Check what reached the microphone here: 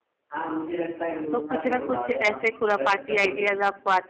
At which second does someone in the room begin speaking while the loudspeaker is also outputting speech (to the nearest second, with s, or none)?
1 s